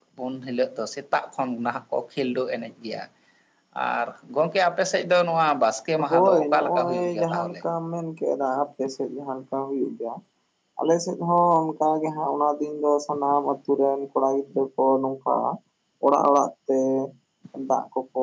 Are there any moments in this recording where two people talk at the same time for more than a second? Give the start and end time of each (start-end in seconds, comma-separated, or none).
6.1-7.6